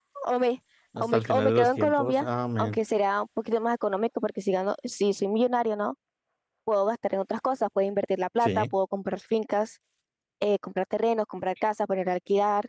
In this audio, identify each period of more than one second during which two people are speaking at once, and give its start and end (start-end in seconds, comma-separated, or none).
1.0-2.2